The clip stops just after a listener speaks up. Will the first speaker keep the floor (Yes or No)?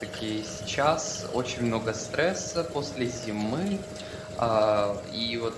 Yes